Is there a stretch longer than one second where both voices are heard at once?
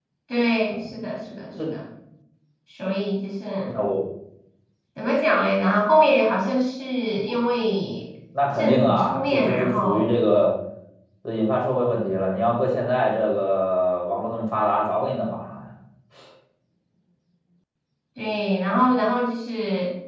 Yes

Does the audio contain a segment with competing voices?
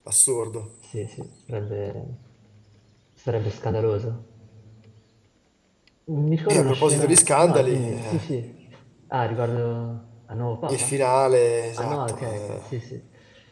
Yes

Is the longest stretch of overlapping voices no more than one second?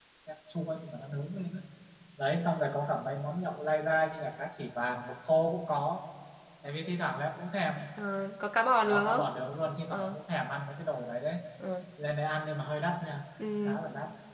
Yes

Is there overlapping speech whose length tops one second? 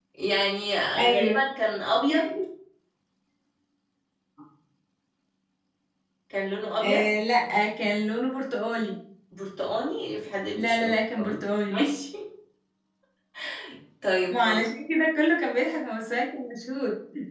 Yes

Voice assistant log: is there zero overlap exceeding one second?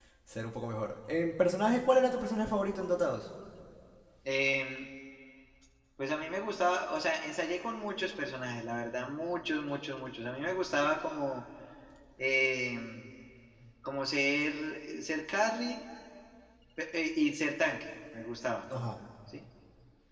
Yes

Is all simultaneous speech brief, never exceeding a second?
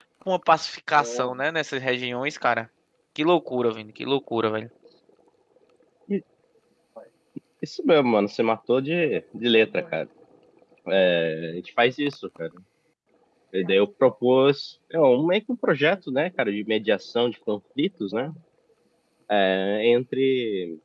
Yes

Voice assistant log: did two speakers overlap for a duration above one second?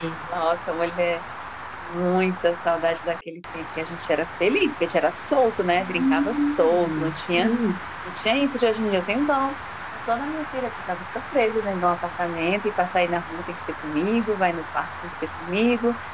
Yes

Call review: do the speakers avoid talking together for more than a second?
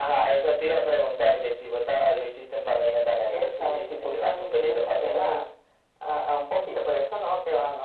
No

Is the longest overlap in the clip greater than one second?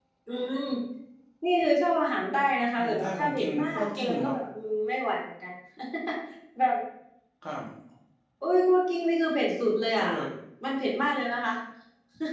Yes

